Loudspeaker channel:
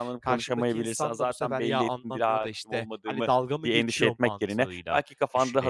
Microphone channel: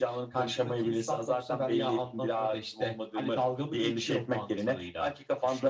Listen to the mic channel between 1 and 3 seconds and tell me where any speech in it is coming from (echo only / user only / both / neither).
echo only